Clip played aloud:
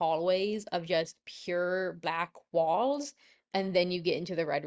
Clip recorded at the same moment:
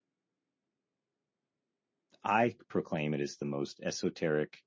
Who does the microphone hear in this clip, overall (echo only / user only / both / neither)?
user only